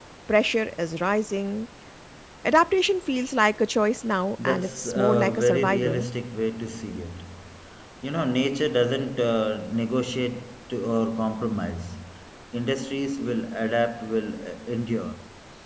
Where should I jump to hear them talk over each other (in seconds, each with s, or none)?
4.4 s